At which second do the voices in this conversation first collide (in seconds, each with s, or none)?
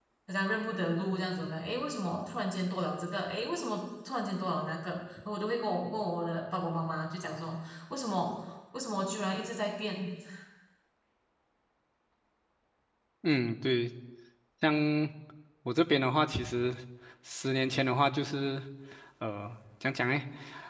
none